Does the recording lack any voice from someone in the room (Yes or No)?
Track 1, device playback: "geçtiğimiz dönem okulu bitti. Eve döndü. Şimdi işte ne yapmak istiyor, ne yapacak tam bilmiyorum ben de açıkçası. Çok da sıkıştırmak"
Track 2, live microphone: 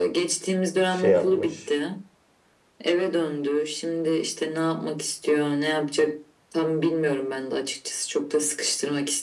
No